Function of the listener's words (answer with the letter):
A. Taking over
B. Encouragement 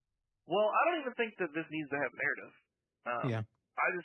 B